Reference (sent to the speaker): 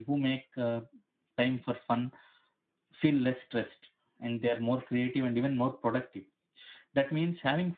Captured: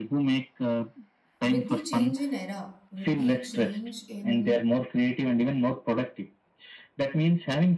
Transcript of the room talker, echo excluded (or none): with the change in era, with the change in